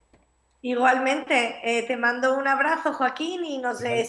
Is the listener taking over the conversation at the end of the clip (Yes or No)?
No